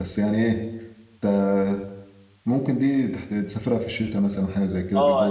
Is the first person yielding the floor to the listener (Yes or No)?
Yes